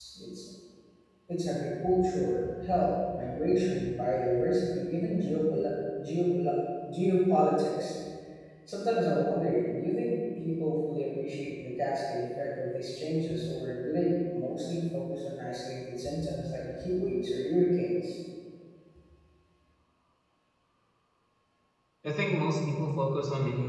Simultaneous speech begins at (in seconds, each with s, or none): none